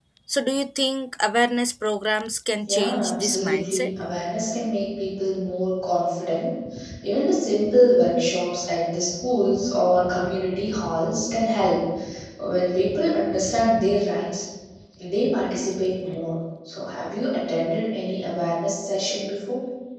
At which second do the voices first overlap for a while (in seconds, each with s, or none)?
2.7 s